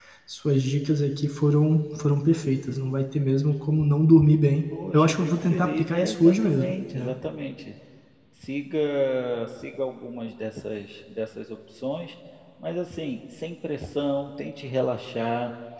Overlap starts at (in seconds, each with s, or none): 4.9 s